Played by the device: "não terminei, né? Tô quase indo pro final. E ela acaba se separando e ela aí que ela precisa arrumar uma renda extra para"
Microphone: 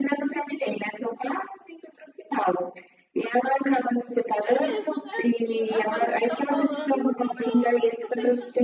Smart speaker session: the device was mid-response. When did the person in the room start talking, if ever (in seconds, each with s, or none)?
4.5 s